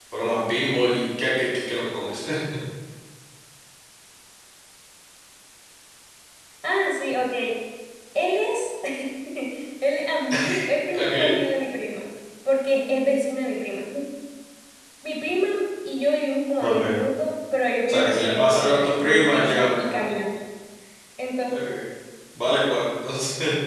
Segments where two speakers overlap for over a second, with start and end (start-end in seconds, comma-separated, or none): 17.9-20.0